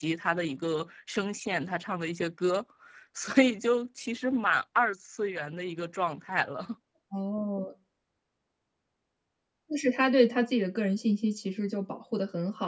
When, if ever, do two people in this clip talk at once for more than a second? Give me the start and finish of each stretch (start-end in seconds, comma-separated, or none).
none